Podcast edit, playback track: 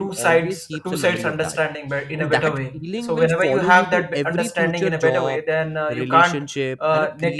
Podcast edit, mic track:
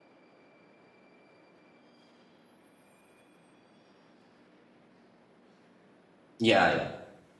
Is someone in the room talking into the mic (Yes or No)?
Yes